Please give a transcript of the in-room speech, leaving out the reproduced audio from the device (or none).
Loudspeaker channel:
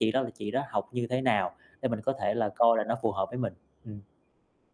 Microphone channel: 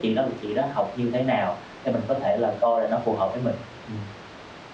none